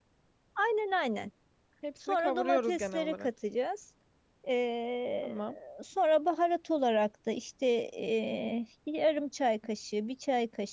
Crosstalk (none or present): present